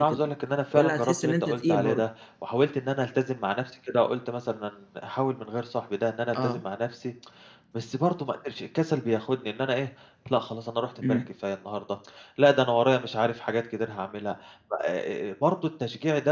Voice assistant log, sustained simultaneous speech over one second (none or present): present